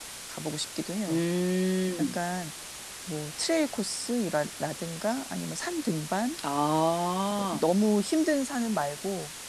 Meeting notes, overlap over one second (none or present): none